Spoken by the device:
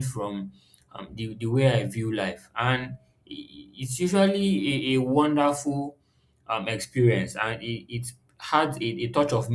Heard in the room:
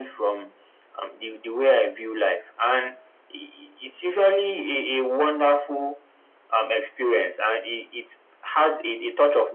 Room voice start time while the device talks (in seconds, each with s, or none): none